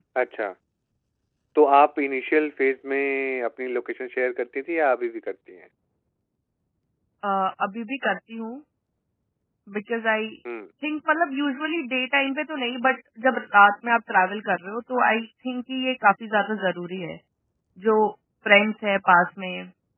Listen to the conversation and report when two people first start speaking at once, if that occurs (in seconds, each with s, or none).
none